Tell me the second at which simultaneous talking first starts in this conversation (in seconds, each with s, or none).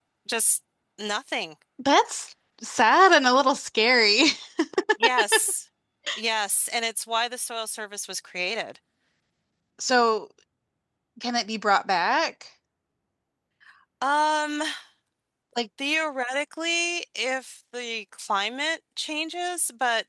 none